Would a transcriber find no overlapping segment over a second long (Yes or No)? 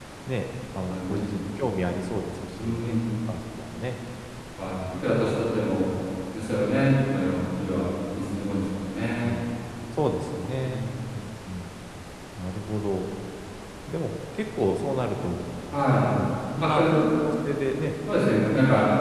Yes